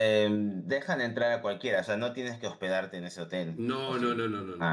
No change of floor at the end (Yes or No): No